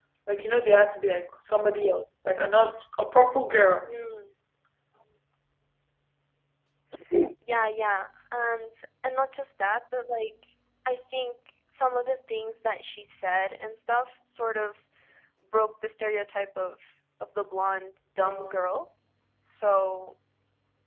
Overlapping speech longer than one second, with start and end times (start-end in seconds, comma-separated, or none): none